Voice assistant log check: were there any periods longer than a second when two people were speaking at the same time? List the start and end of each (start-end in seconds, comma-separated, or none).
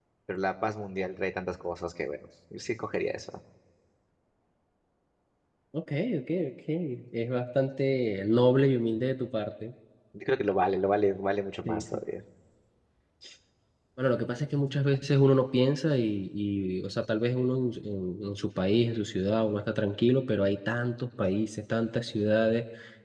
none